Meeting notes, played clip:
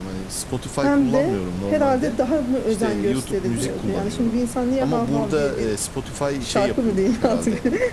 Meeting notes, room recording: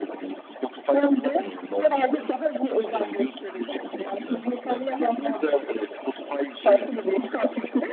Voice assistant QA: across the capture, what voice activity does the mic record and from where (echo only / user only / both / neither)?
both